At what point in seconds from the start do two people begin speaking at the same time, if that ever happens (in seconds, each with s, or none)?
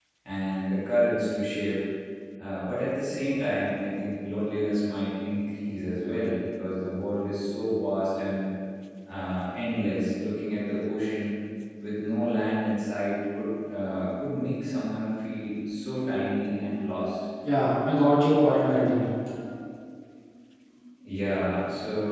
none